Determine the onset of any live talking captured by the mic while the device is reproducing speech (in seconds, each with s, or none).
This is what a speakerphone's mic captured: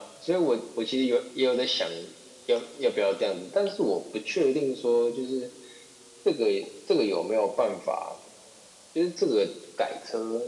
none